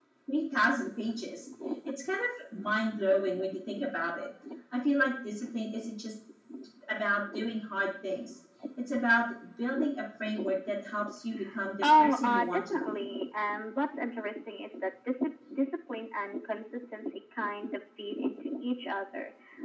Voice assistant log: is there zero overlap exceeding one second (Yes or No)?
No